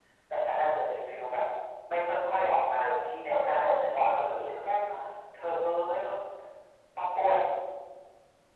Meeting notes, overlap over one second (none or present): present